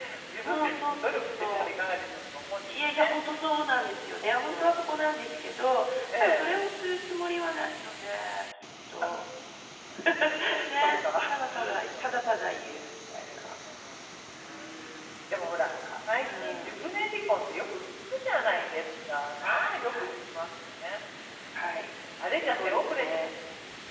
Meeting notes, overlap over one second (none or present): present